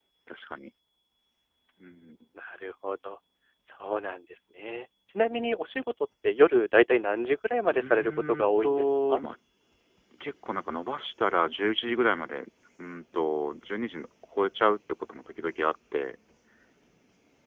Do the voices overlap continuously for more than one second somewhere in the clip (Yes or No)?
Yes